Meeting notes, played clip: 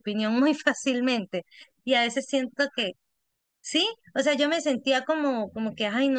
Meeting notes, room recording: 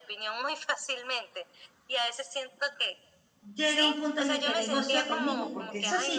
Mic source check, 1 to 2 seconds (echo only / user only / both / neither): echo only